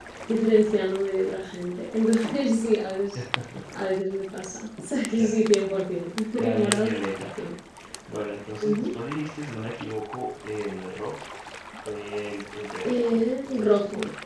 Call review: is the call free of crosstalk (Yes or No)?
No